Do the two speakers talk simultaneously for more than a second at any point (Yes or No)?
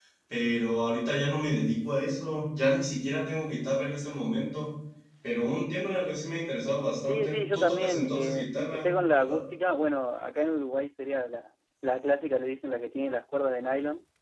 Yes